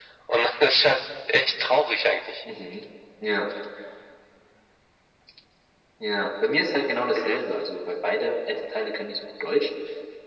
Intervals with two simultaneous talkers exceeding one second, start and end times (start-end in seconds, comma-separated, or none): none